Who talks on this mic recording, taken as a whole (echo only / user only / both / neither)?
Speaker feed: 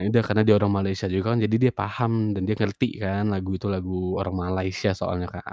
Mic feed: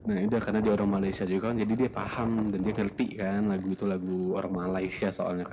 echo only